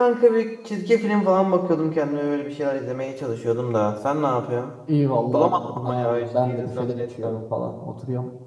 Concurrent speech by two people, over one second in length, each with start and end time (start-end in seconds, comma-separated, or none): 5.3-7.4